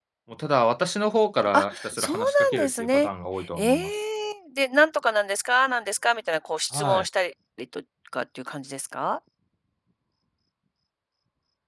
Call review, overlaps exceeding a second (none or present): present